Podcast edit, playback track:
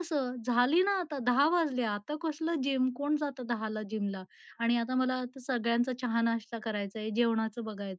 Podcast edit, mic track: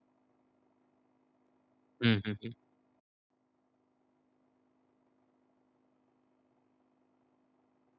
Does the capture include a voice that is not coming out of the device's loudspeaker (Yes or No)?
Yes